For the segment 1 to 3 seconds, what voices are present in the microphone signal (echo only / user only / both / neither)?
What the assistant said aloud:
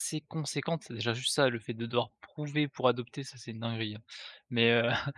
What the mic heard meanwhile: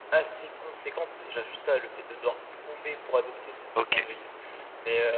echo only